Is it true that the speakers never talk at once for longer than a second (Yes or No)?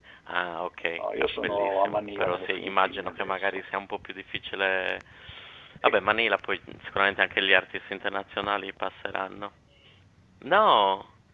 No